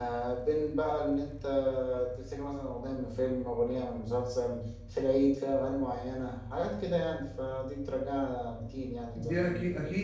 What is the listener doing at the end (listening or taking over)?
taking over